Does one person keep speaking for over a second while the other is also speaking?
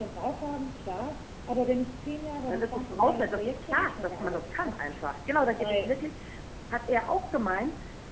Yes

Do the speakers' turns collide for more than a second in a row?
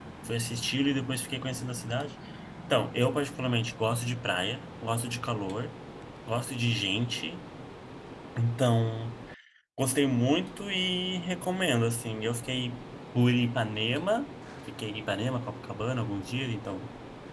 No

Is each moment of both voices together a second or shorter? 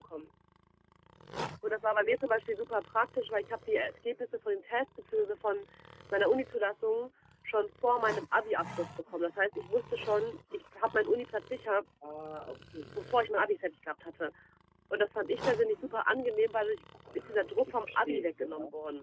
No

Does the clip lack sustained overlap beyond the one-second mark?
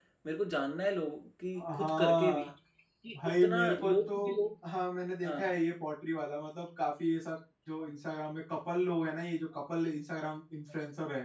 No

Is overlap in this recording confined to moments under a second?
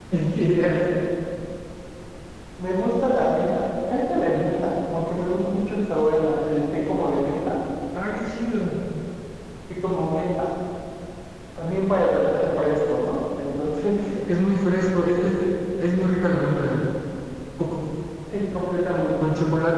Yes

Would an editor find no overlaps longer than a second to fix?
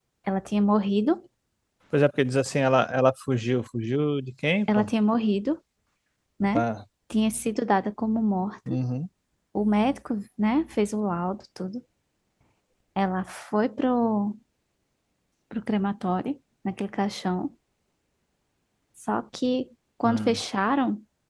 Yes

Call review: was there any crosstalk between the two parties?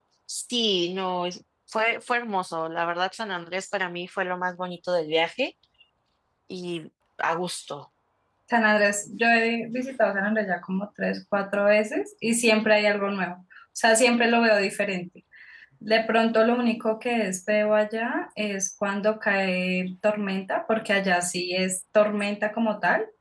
No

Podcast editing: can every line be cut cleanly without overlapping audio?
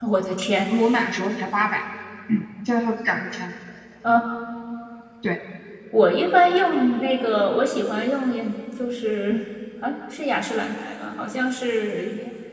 Yes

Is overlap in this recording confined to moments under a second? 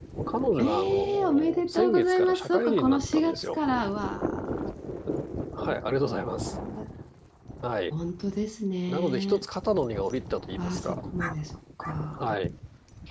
No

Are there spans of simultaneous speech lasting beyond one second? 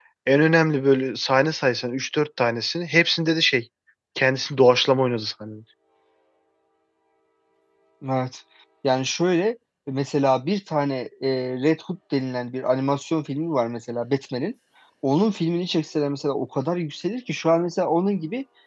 No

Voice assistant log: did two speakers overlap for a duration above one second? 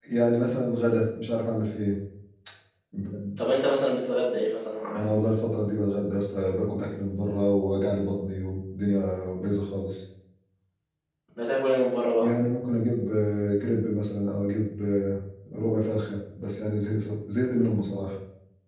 No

